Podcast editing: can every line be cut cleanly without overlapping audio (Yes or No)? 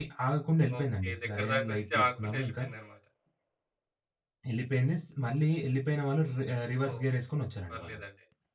No